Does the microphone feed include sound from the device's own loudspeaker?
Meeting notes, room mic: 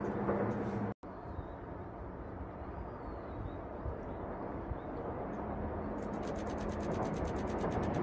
No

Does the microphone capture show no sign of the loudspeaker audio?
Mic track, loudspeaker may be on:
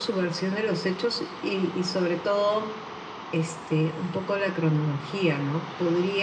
No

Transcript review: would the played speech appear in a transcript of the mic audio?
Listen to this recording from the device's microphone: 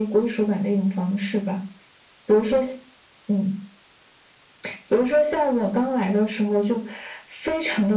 Yes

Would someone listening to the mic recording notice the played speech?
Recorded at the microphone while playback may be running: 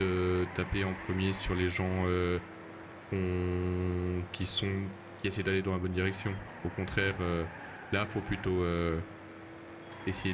No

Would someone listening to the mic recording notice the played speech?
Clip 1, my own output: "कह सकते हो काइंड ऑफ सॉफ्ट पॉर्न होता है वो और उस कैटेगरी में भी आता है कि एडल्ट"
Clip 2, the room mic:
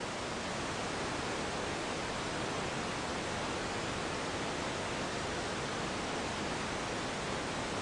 No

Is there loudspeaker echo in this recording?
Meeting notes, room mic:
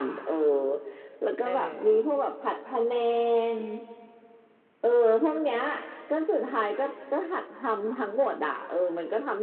Yes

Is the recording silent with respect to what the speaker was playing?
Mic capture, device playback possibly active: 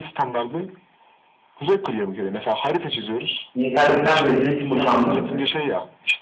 No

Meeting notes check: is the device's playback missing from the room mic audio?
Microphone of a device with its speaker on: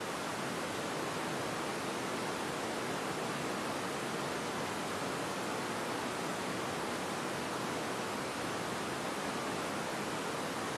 Yes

